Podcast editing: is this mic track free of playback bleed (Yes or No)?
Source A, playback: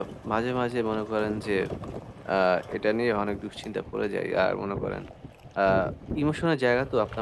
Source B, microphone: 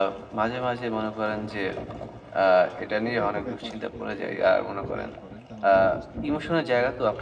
No